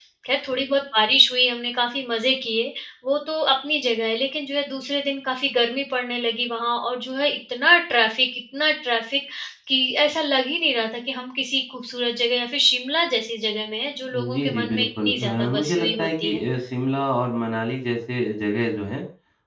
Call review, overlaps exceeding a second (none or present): present